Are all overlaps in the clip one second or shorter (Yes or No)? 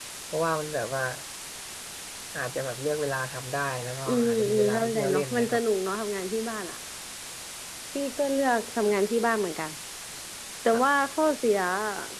No